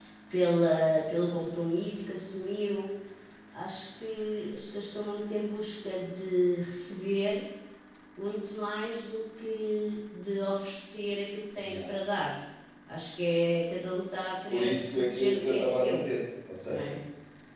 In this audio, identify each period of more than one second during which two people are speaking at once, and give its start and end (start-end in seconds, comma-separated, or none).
14.5-16.0